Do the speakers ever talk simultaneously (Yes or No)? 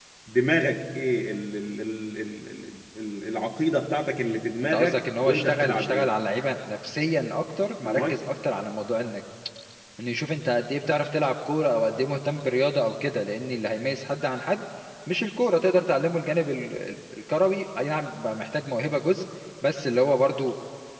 Yes